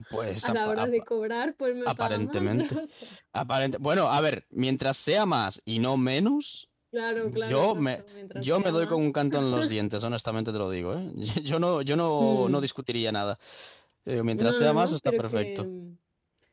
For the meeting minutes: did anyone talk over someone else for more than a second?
Yes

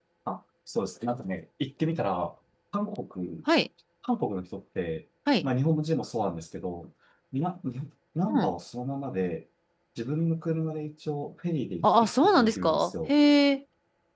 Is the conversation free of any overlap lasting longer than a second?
No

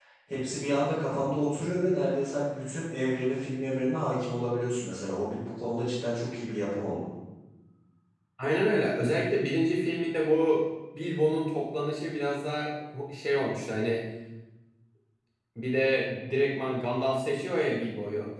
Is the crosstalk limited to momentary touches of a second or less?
Yes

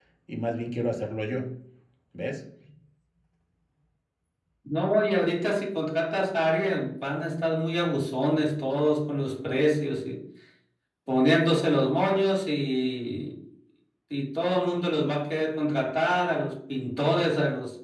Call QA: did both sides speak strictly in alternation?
Yes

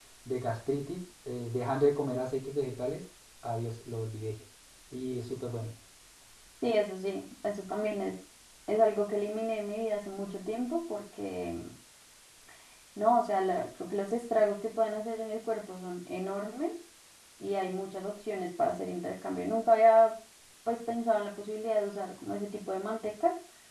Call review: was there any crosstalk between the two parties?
No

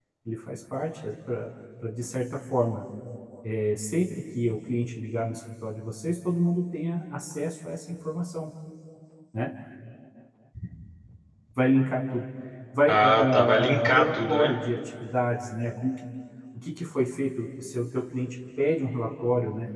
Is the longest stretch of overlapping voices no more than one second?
No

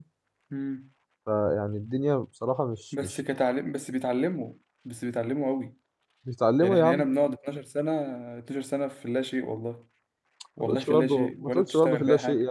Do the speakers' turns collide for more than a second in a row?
Yes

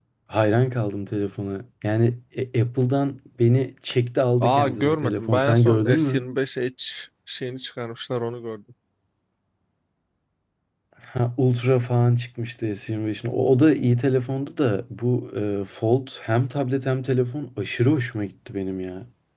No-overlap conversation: No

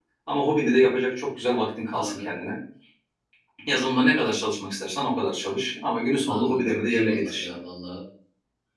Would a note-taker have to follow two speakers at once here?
Yes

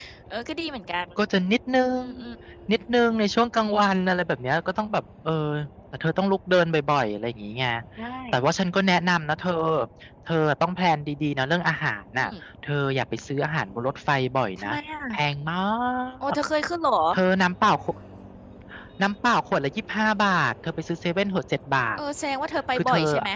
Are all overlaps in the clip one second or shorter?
Yes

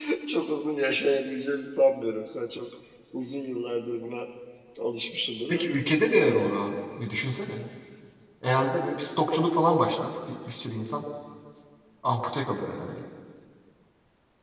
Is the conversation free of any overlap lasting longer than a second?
Yes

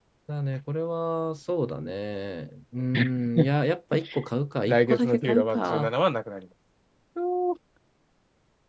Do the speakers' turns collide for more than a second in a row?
Yes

